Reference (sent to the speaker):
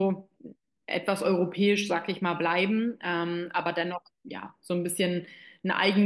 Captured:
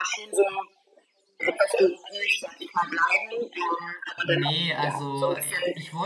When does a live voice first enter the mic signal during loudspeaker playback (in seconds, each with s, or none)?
4.2 s